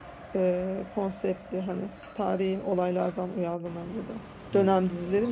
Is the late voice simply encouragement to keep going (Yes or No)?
No